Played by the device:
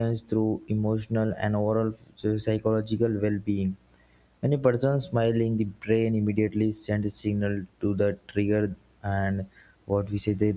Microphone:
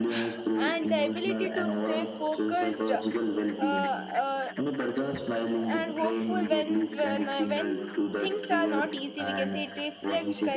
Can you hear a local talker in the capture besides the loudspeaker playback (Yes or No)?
Yes